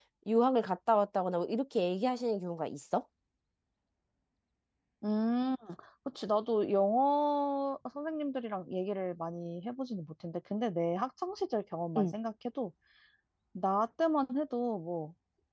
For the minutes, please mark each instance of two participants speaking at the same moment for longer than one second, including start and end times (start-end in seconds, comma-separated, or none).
none